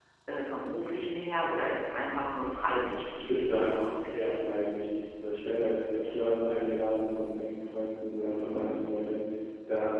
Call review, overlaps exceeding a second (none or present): present